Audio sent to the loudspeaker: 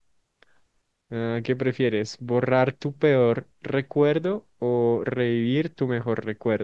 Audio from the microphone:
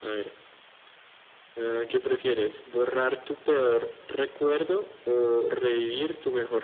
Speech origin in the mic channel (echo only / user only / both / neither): echo only